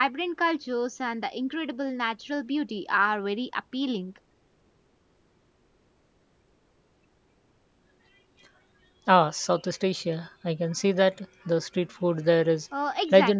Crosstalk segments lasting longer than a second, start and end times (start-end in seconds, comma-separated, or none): none